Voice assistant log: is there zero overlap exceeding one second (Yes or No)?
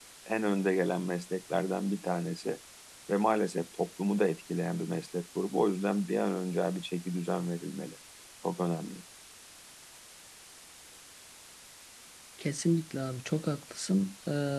Yes